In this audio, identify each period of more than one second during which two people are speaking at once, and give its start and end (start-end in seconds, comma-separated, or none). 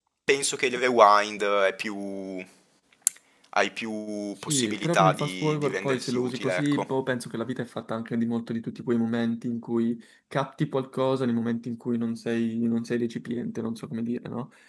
4.4-6.8